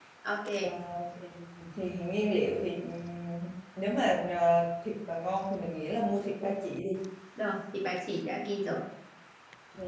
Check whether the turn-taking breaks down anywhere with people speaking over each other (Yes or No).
No